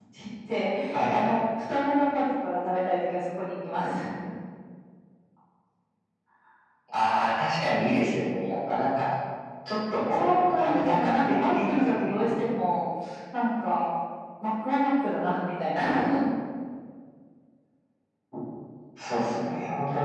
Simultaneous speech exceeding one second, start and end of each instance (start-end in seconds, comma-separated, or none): 10.1-12.2